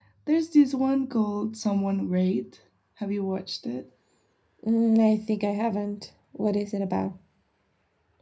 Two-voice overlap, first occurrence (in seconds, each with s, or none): none